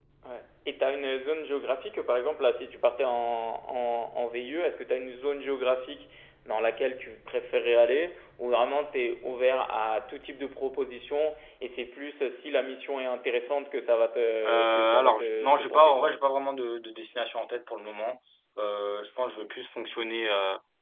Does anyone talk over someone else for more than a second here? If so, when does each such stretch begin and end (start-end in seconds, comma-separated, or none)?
14.4-16.1